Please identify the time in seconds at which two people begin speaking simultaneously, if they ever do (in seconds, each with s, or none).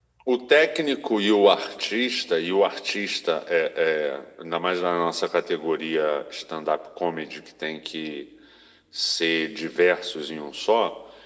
none